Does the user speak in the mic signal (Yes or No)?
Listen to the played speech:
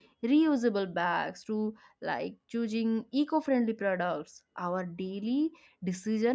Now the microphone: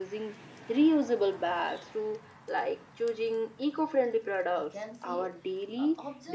Yes